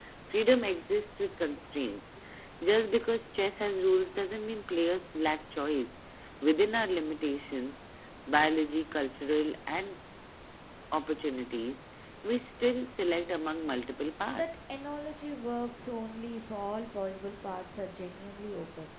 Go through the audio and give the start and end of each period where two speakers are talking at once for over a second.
none

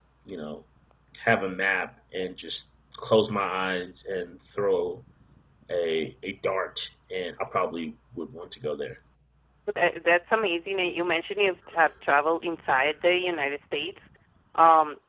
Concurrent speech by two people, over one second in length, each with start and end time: none

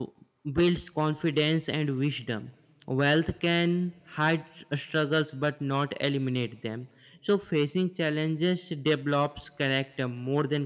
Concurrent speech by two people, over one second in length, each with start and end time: none

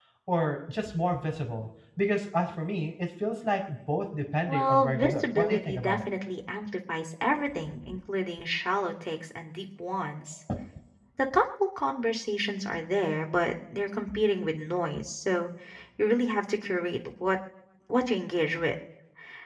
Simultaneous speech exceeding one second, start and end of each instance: 4.5-6.0

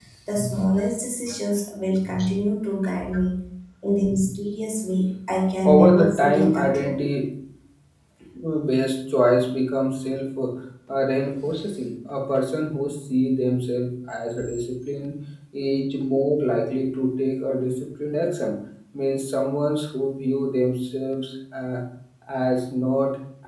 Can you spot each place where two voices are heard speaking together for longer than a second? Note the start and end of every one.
5.6-7.0

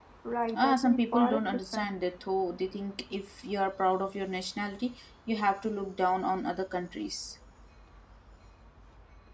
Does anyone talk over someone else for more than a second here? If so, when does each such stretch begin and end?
0.5-1.9

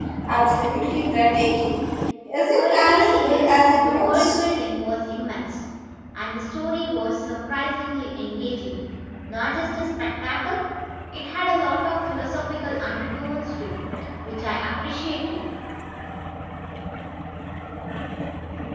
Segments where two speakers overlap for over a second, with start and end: 2.5-4.4

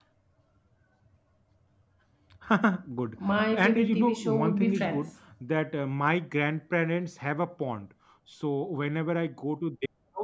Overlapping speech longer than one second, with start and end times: 3.3-5.1

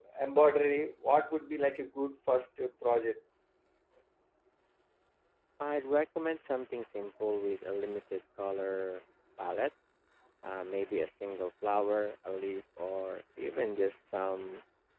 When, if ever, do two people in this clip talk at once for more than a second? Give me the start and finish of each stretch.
none

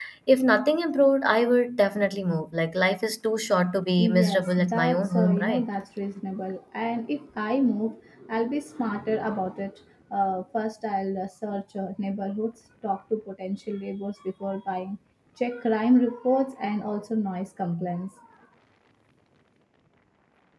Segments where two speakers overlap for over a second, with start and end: 4.0-5.7

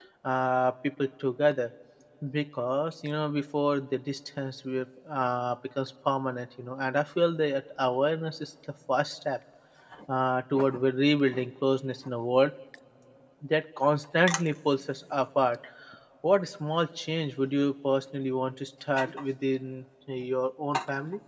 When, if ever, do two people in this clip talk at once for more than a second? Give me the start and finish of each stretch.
none

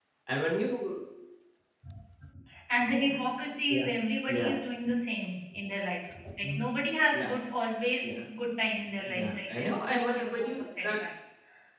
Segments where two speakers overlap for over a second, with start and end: 9.1-11.0

